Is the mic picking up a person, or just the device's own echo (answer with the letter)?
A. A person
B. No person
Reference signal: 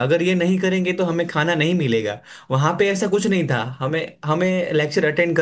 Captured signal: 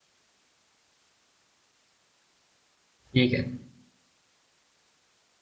A